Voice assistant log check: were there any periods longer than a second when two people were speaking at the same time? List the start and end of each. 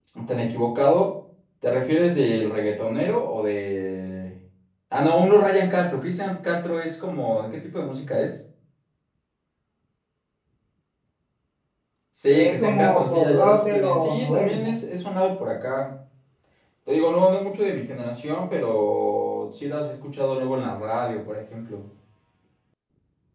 12.3-14.7

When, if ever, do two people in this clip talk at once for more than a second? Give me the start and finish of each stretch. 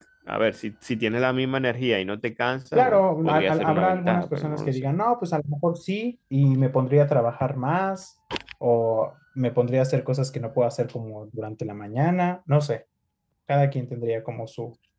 2.8-4.8

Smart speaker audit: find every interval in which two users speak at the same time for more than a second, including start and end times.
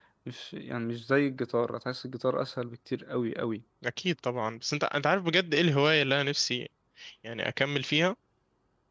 none

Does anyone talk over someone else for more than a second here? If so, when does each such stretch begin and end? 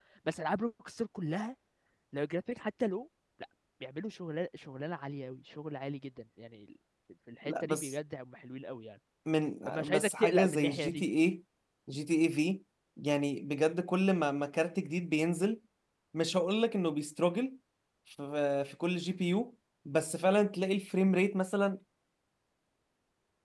9.7-11.0

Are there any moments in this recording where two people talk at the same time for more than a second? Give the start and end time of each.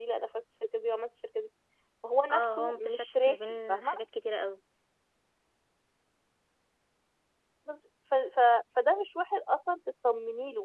2.3-3.9

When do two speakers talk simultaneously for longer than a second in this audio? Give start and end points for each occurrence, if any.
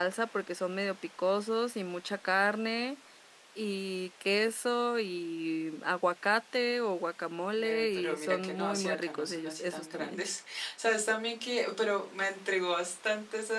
7.6-10.2

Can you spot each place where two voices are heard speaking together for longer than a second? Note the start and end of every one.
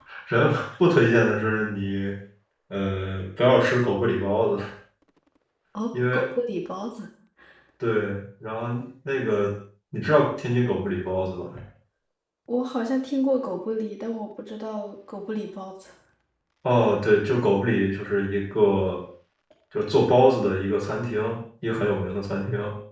none

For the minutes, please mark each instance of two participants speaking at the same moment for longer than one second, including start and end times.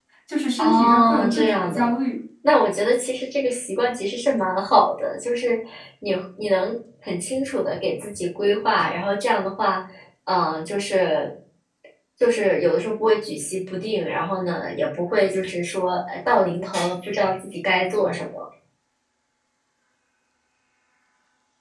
0.6-1.9

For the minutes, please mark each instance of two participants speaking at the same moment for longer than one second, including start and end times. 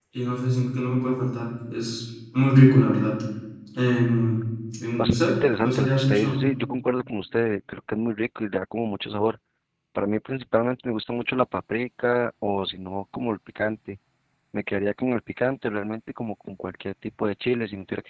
5.0-6.4

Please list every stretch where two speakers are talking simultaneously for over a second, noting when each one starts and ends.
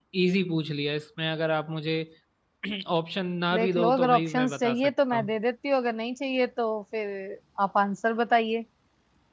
3.5-5.3

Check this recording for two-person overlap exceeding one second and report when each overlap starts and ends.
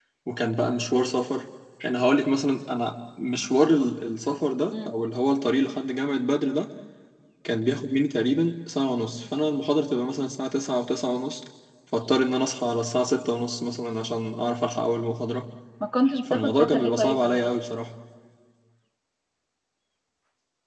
16.3-17.5

